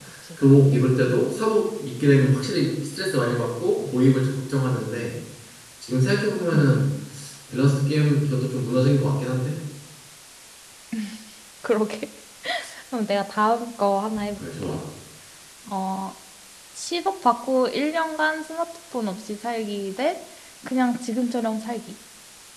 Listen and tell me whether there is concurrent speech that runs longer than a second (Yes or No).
No